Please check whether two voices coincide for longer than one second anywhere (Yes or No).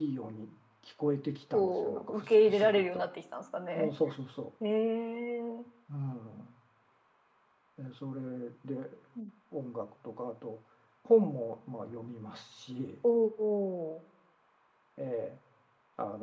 Yes